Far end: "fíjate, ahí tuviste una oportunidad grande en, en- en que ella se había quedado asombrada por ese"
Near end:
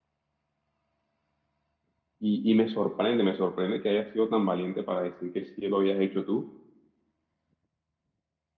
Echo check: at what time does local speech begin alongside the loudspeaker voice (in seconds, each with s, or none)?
2.2 s